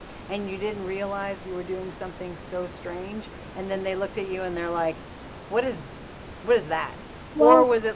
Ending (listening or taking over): listening